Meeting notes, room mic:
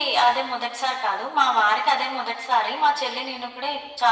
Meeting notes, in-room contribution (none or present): none